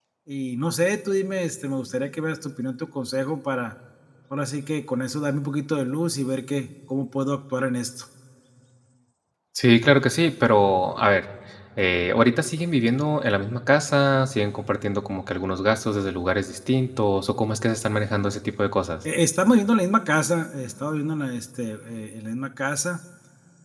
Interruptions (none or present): none